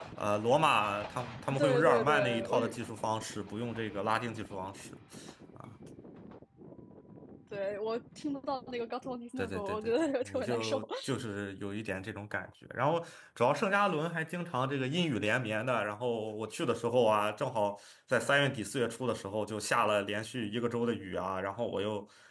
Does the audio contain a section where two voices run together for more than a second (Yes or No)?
Yes